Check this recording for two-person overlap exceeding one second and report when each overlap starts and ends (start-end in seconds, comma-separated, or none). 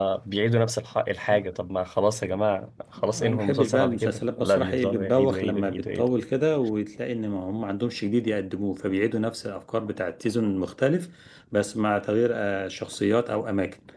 3.0-6.1